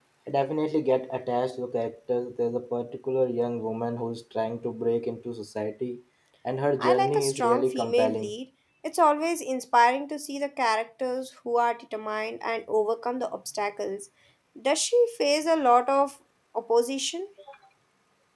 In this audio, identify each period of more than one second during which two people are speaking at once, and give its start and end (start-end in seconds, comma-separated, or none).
6.8-8.3